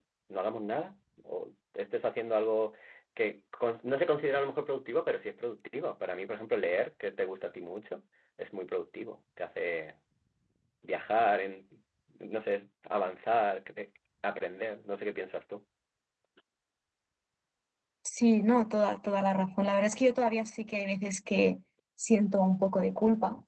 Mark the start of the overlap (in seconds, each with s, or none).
none